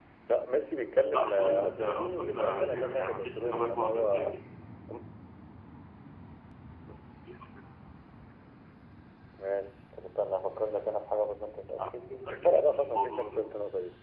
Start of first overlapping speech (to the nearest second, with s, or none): 1 s